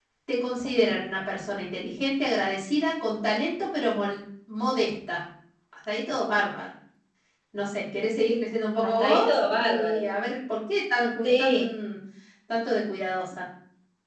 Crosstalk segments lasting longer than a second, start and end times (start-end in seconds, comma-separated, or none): 8.8-10.1